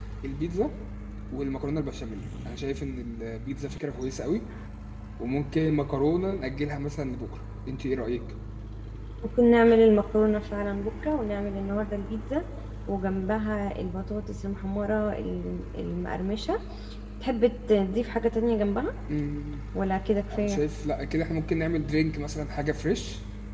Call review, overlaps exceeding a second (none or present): none